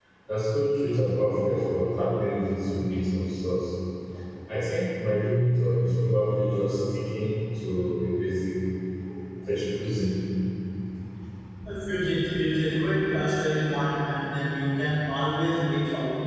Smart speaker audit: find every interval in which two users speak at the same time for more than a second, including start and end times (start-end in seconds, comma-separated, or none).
none